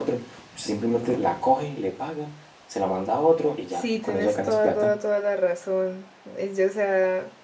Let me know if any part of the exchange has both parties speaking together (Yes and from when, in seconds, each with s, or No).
Yes, from 3.7 s